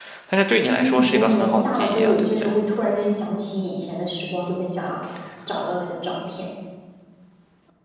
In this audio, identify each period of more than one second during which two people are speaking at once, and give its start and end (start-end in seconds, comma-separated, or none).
0.6-2.5